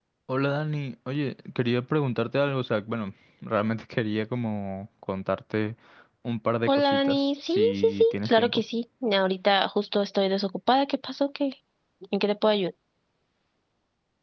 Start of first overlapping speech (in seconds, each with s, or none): 6.7 s